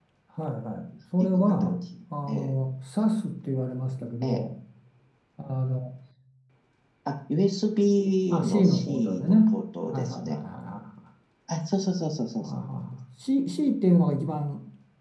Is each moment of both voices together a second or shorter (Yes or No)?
No